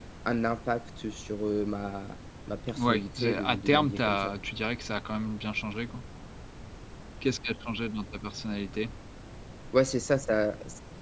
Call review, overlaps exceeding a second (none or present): present